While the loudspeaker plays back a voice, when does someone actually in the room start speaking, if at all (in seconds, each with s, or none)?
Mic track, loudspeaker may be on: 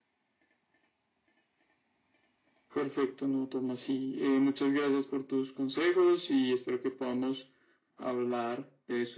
none